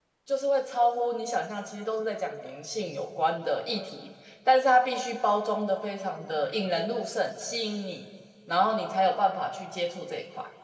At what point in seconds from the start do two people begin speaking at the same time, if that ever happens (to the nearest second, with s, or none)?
none